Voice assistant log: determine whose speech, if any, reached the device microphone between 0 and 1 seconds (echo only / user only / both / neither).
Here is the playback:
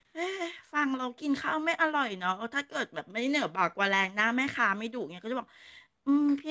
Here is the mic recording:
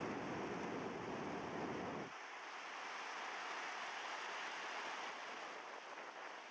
neither